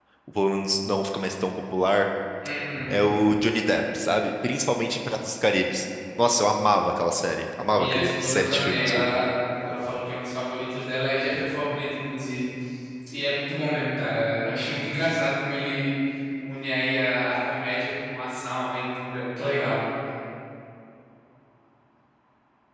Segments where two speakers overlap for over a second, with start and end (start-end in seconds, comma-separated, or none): 7.8-9.0